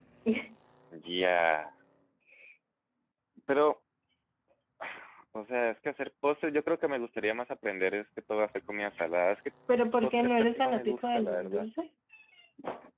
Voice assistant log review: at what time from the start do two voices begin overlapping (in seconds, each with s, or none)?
10.0 s